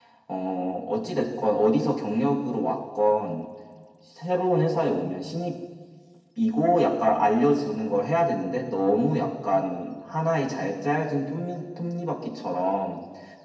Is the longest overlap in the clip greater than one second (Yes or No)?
No